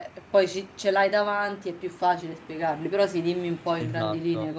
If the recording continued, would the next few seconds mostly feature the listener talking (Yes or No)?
Yes